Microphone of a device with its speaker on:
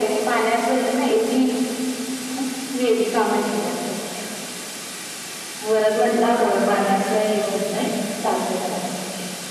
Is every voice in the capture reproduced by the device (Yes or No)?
Yes